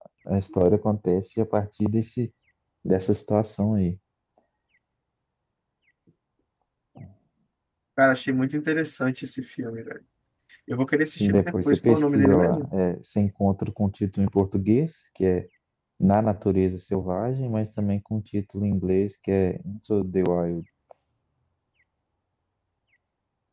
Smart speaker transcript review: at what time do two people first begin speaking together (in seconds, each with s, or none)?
11.2 s